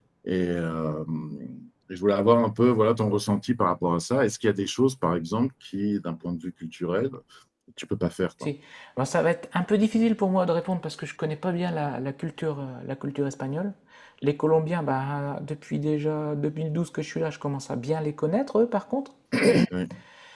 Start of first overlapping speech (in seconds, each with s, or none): none